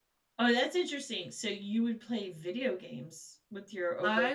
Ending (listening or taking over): taking over